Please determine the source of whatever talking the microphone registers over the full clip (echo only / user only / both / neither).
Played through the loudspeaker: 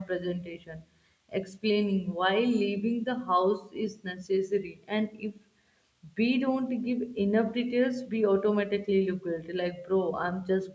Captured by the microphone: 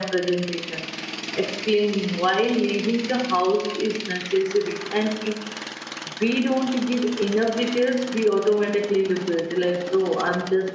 echo only